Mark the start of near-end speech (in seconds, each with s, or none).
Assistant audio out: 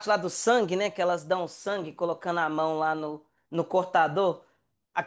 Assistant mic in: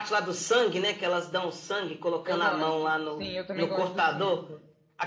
2.2 s